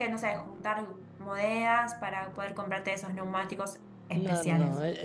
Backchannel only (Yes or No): No